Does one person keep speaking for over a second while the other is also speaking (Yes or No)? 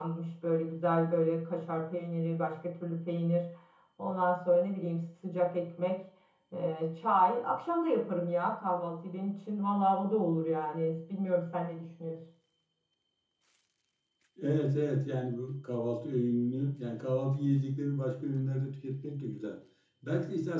No